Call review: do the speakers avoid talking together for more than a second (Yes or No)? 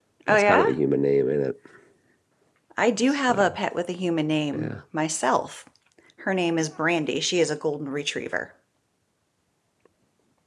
Yes